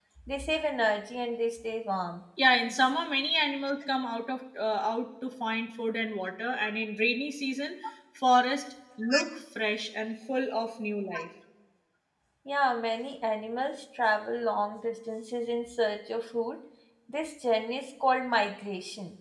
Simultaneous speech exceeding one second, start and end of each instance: none

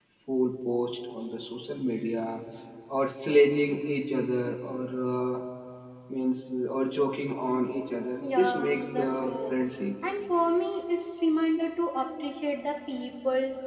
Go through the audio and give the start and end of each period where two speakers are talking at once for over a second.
8.2-9.6

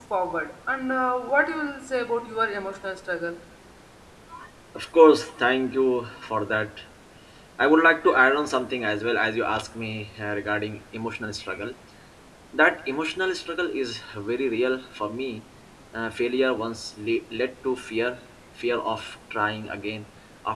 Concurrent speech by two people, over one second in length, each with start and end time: none

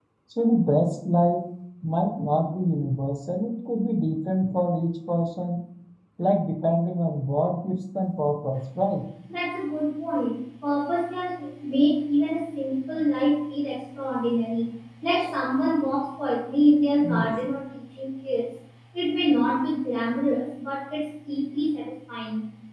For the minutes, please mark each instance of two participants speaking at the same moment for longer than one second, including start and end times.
none

